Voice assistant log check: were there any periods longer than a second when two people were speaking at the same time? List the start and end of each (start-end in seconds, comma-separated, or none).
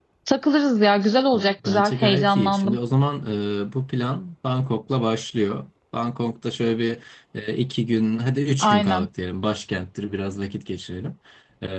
1.3-2.8